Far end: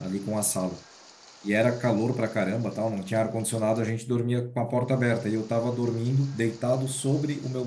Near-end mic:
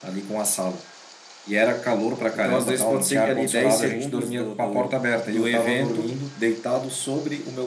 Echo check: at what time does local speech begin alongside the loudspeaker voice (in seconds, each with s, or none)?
2.3 s